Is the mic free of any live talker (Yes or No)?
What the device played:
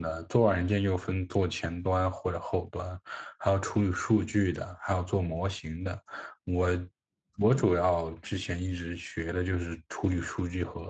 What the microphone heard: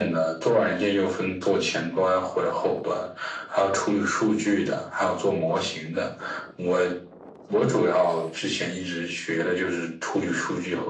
Yes